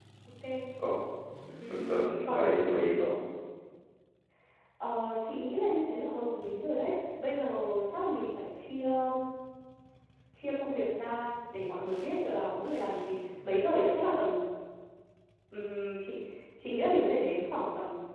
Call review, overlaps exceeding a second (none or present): present